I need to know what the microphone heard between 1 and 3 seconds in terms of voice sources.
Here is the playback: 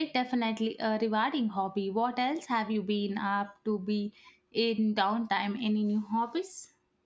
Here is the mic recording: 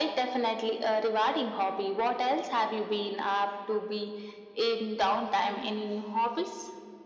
echo only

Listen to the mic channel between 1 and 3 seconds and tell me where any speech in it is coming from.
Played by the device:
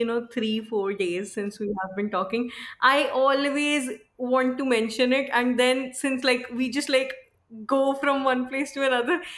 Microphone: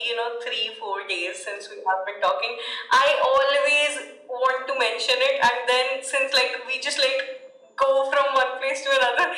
echo only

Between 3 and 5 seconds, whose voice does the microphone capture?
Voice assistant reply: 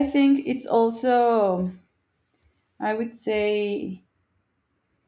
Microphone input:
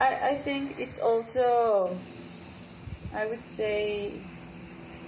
echo only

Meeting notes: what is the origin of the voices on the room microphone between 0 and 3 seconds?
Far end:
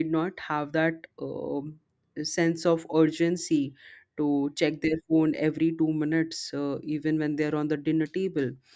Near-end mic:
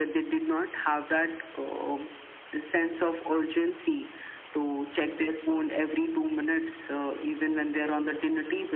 echo only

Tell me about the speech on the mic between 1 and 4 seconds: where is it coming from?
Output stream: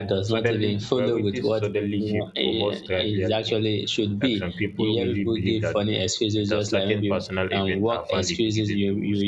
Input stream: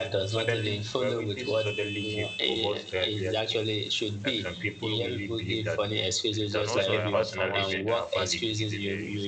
echo only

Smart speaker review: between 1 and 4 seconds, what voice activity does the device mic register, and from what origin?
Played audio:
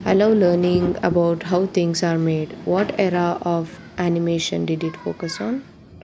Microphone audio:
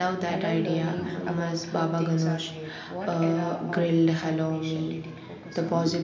both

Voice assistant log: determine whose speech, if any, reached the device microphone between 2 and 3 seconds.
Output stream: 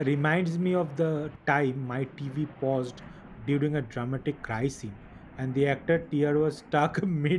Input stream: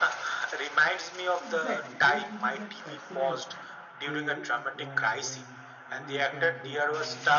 both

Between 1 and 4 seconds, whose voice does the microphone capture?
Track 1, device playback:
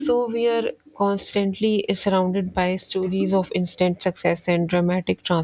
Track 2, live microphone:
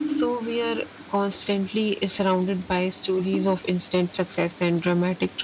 echo only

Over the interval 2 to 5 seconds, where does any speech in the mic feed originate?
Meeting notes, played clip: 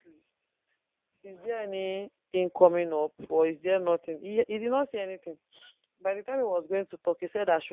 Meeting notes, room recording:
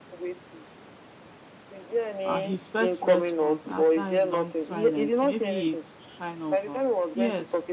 both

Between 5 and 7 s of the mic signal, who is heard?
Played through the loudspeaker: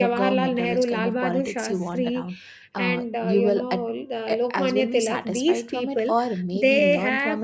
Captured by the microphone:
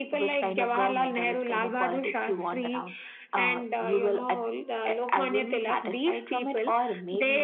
echo only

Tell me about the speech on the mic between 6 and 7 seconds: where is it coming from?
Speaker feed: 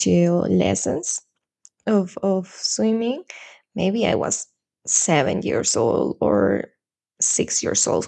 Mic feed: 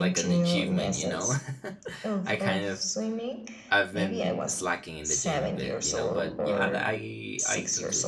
both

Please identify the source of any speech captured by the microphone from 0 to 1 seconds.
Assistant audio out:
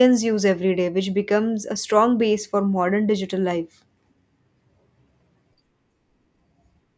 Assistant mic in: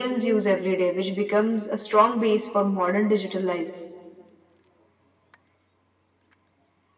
echo only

